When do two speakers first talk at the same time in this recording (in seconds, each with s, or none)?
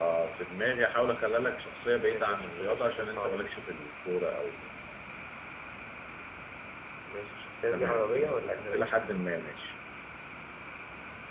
2.0 s